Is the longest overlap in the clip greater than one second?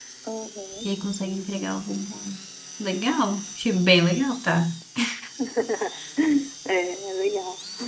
No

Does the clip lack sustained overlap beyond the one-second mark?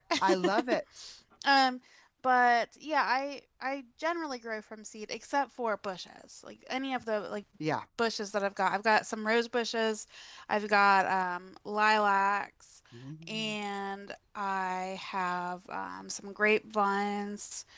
Yes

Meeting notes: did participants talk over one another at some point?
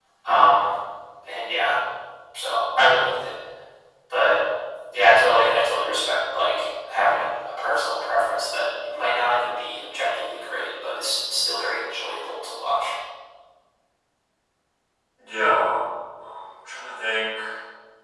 No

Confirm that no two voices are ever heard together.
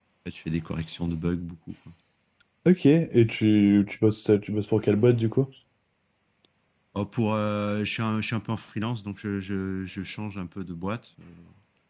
Yes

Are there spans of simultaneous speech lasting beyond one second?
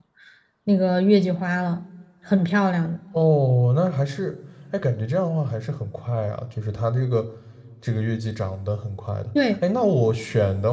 No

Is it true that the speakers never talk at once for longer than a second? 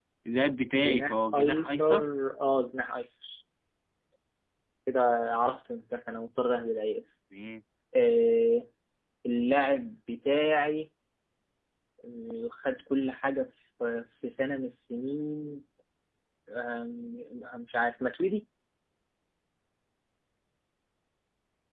No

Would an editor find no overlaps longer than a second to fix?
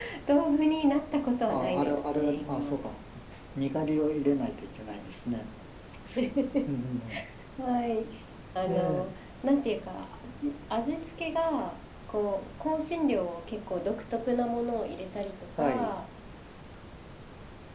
No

